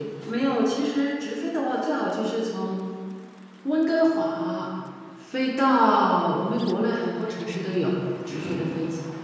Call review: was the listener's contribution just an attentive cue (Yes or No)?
No